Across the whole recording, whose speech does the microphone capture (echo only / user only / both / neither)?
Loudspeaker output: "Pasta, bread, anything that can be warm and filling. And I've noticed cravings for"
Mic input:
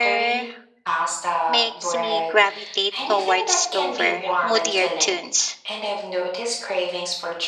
both